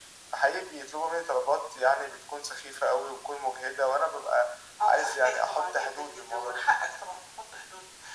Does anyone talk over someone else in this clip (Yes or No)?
Yes